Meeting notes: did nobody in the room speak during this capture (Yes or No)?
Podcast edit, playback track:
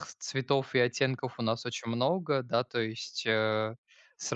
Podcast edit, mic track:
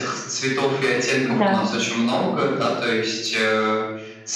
No